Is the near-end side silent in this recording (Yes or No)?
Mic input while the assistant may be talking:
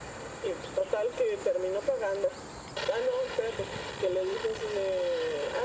Yes